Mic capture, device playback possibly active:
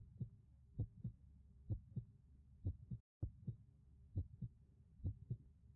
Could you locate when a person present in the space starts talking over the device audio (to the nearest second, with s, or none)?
none